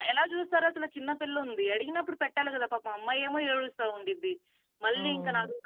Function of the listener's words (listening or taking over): listening